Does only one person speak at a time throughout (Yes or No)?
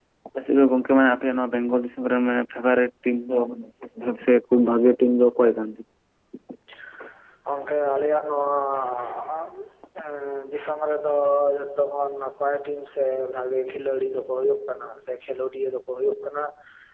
Yes